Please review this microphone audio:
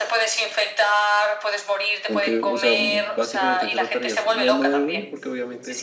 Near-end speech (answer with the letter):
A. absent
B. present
B